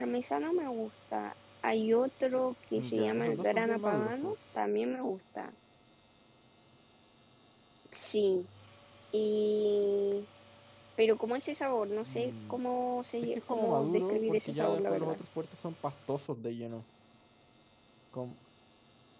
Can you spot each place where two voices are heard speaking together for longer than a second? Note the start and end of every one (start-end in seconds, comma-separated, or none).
2.8-4.3, 13.3-15.2